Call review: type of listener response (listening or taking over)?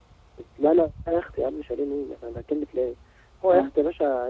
listening